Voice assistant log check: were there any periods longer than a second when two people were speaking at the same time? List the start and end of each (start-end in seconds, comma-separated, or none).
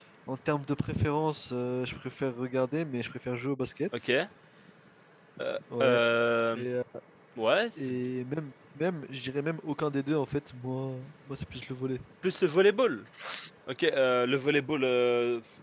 none